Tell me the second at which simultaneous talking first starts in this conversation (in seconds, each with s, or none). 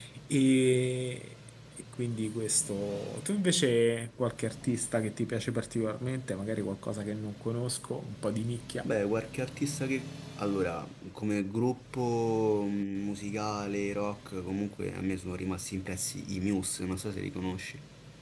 none